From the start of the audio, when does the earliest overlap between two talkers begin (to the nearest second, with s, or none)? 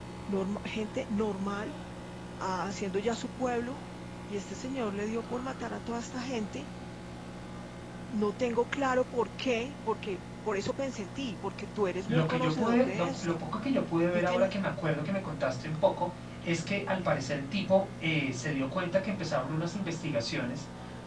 12 s